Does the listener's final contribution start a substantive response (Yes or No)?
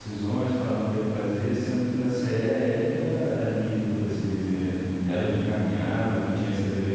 No